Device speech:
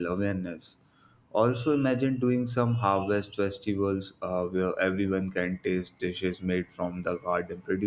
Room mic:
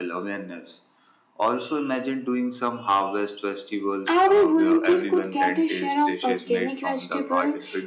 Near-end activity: present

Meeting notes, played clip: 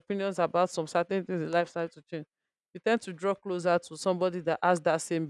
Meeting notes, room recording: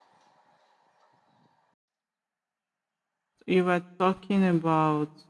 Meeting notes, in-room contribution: present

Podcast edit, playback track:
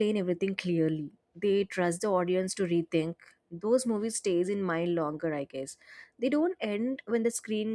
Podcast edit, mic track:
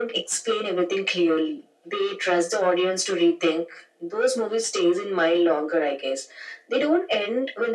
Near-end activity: none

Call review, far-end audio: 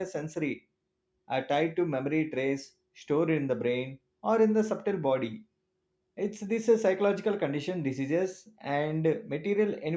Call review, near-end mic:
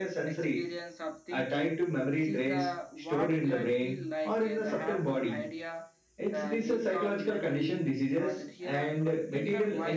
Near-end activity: present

